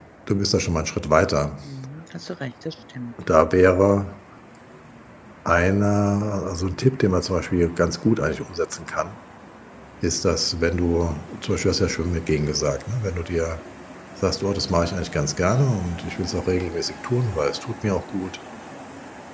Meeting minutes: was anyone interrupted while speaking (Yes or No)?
No